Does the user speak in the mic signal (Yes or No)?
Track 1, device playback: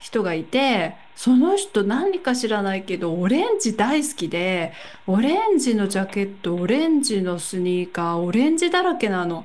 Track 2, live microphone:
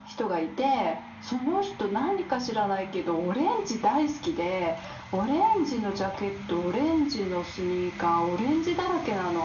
No